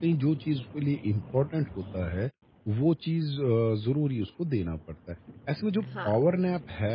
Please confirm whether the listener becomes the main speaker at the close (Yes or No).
No